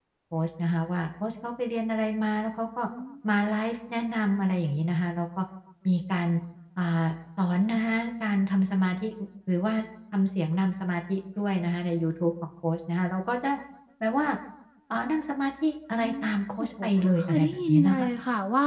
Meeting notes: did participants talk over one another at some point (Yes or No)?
Yes